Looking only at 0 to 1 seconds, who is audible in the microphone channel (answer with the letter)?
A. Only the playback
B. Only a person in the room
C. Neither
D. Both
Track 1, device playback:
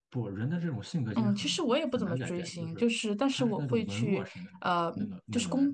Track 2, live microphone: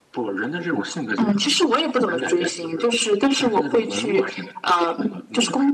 A